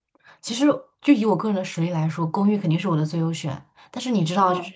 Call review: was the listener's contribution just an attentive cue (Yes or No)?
Yes